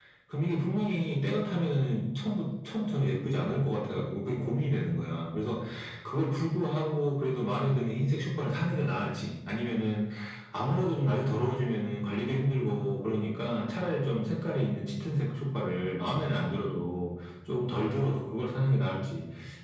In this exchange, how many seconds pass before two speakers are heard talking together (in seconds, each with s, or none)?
none